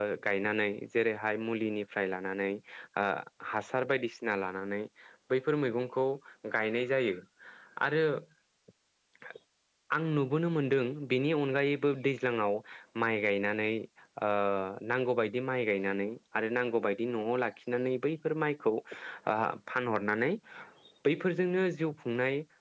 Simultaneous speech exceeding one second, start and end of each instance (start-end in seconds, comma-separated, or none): none